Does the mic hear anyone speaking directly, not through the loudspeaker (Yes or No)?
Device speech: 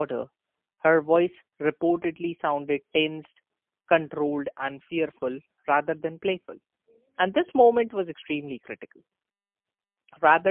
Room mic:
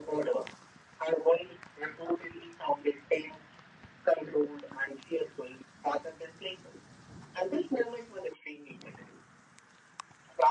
No